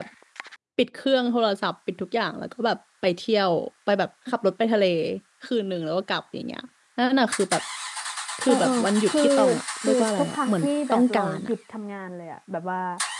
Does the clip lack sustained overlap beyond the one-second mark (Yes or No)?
No